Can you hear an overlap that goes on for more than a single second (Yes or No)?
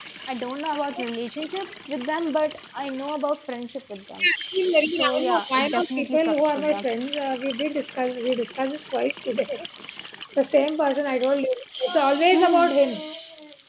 Yes